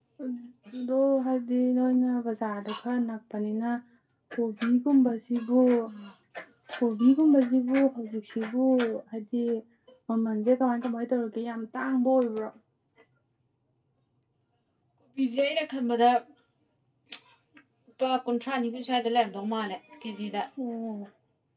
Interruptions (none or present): none